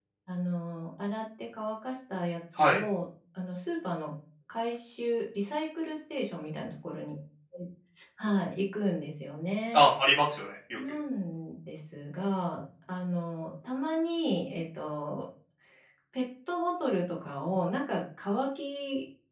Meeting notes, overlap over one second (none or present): none